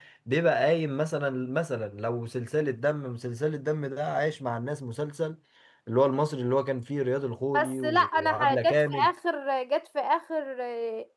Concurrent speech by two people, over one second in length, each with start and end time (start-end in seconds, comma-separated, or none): 7.5-9.1